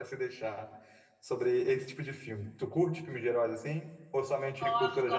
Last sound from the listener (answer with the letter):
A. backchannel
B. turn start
B